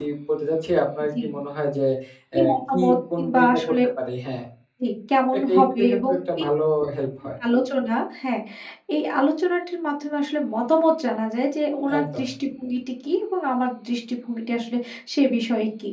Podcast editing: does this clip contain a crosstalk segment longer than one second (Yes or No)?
Yes